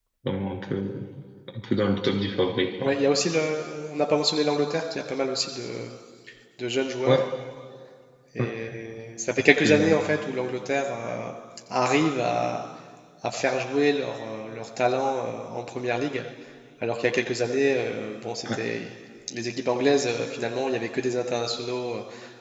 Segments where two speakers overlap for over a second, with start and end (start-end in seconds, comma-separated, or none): none